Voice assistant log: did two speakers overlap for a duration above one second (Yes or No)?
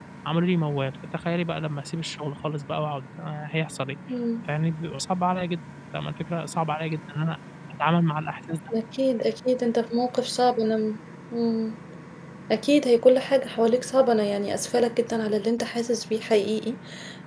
No